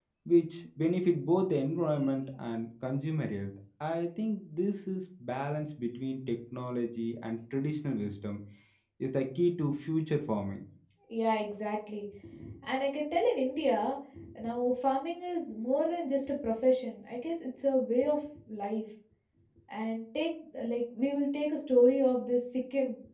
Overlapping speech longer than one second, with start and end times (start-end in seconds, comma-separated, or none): none